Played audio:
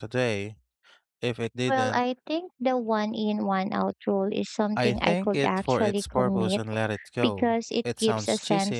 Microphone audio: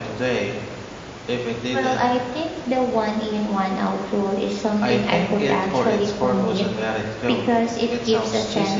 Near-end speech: none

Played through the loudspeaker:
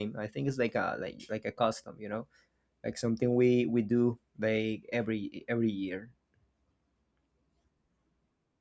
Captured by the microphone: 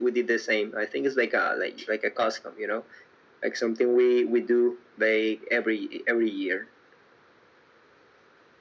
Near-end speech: none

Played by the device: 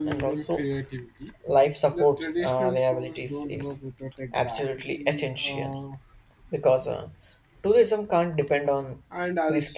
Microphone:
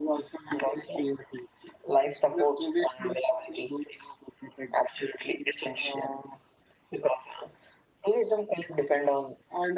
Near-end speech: none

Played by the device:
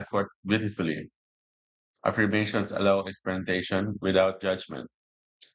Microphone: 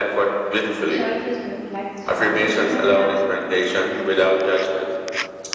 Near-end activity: present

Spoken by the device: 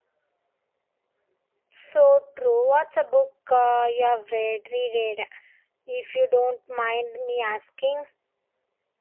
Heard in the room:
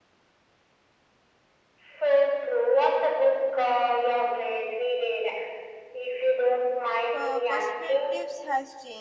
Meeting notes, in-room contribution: present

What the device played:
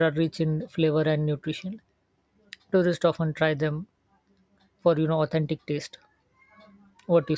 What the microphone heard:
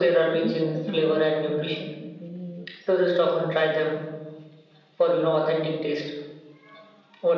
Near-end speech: present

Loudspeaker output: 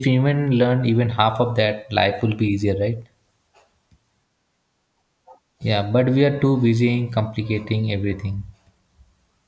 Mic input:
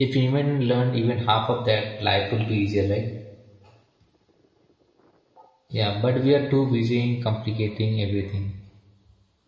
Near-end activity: none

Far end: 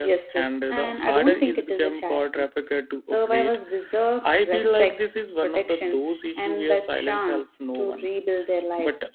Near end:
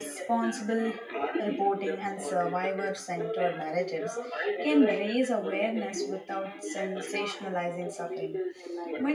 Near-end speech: present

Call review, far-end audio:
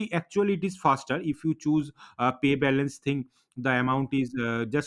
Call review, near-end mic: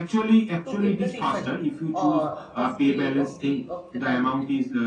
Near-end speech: present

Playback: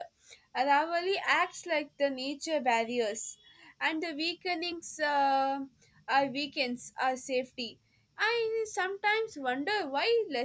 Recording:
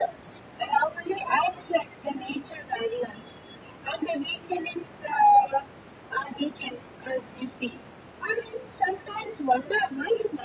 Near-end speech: none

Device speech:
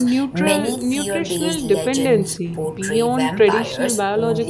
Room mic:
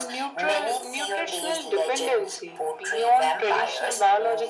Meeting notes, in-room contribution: none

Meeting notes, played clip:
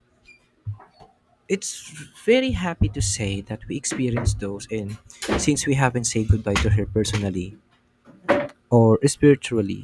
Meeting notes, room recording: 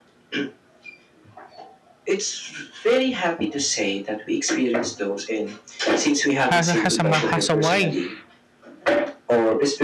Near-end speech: present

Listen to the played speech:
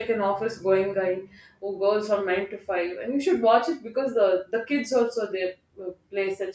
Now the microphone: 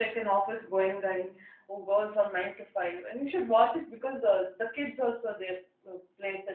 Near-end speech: none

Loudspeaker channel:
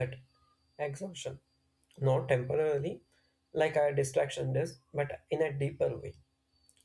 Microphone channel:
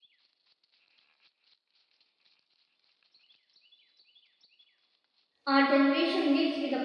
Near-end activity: present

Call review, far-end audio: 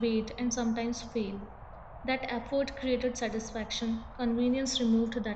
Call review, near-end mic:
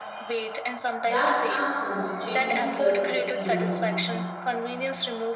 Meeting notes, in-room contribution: present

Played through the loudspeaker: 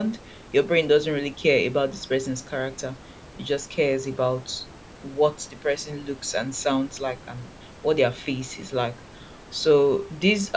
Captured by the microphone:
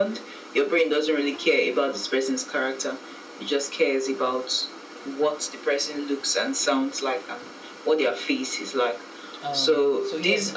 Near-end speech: present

